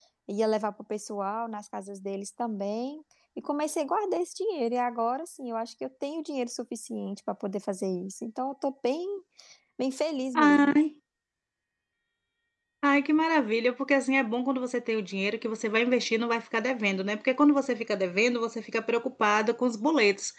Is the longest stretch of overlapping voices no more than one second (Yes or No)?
Yes